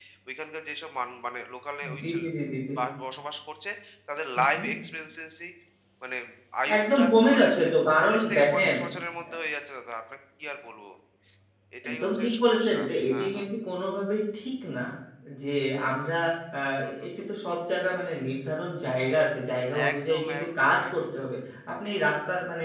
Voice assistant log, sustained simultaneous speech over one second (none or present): present